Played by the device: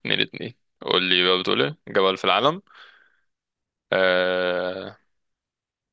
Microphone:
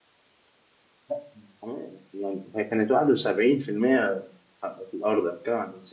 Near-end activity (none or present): present